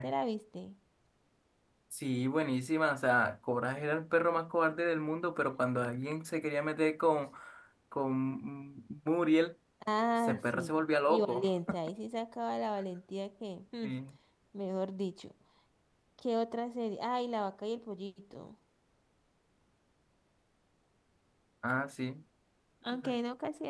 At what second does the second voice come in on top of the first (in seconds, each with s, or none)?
10.2 s